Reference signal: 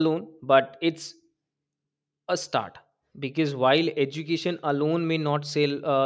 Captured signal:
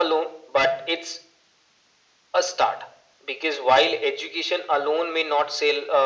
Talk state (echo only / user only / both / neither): echo only